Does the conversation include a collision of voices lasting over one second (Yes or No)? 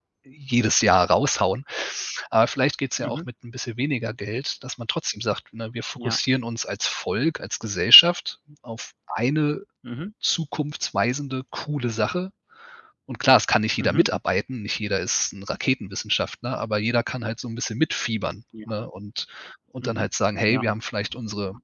No